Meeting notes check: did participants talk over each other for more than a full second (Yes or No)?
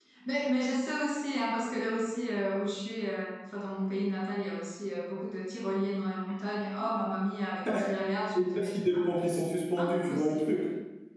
Yes